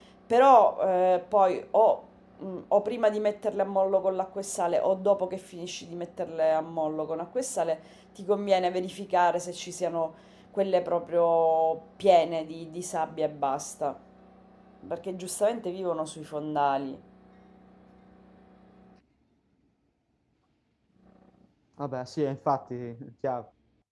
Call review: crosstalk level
none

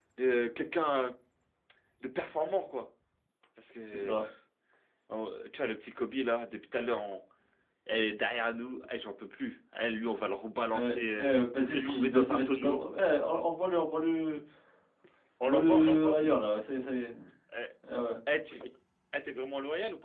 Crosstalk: present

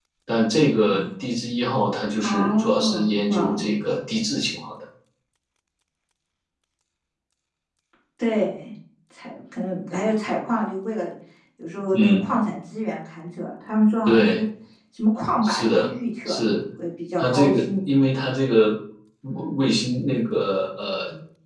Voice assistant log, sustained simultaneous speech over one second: present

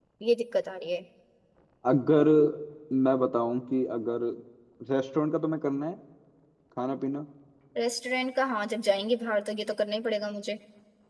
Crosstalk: none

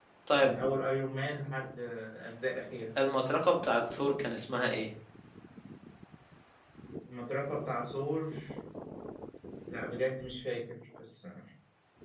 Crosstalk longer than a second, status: none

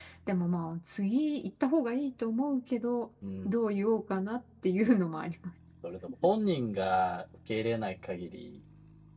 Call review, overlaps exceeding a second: none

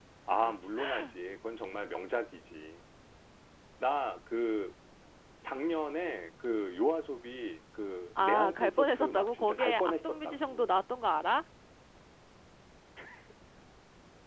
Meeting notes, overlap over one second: present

